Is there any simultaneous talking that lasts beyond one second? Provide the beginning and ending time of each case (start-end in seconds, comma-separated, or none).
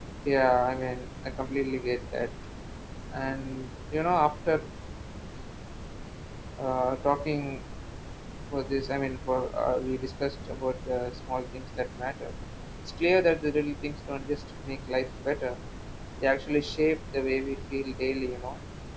none